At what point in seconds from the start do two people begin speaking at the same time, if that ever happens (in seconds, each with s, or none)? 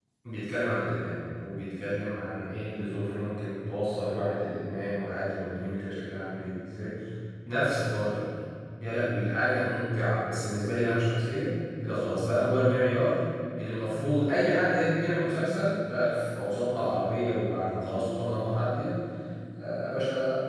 none